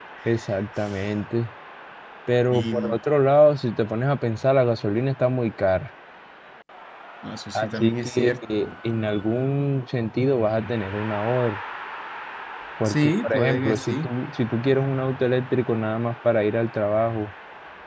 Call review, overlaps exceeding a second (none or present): present